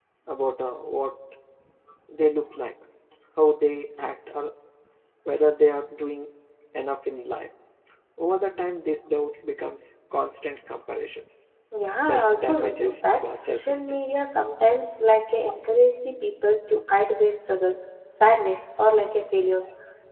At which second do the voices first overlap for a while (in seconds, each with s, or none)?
12.0 s